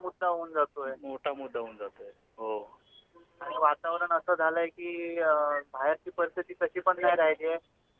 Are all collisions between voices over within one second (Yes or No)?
Yes